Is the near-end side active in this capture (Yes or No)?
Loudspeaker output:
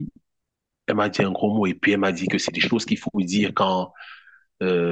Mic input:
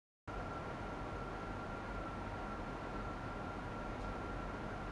No